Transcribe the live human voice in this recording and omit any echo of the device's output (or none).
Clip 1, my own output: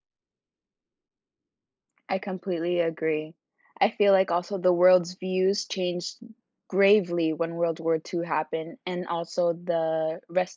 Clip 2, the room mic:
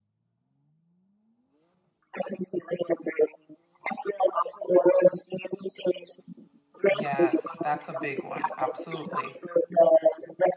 Yes, that's a big one. Absolutely.